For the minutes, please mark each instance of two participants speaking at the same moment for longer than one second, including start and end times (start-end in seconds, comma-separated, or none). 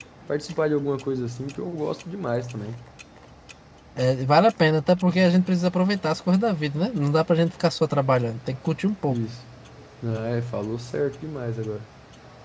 none